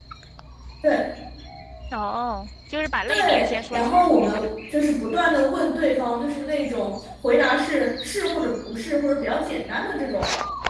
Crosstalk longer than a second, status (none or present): present